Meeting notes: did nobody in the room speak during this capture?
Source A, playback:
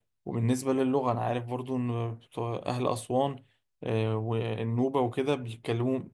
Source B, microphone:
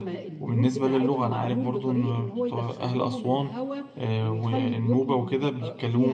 No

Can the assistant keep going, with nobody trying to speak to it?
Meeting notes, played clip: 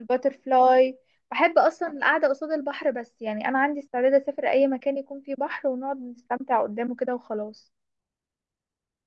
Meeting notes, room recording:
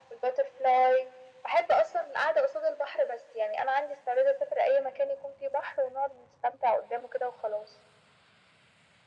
Yes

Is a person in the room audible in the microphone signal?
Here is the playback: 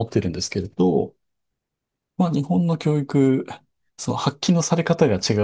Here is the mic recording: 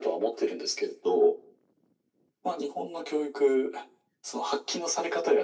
No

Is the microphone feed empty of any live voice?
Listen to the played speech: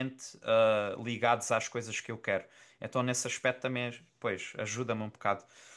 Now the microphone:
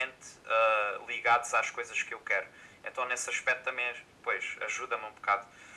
Yes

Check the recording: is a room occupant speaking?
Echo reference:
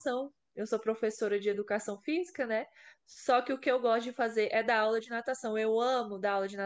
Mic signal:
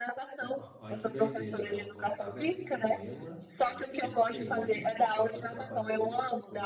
Yes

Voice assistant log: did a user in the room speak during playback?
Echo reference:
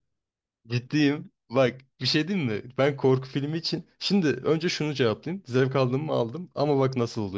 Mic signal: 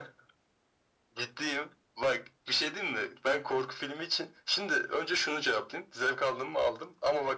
No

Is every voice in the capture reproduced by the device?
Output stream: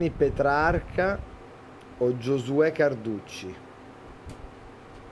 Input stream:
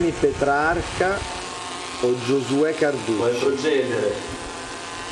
No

